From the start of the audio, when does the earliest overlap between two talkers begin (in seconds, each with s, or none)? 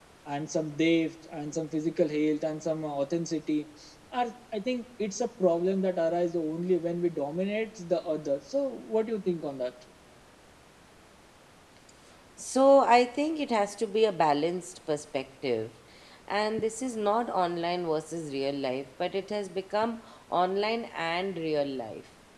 none